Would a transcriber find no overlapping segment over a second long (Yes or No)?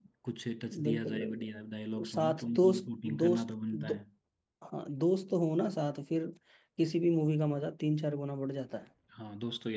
No